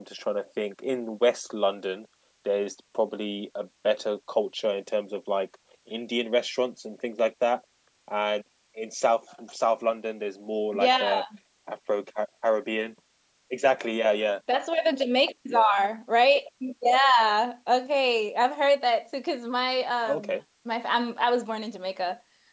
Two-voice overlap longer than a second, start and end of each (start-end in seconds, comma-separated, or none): none